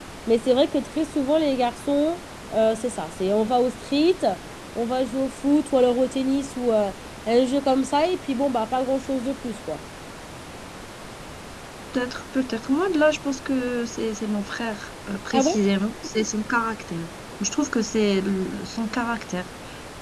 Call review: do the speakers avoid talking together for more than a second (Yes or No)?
Yes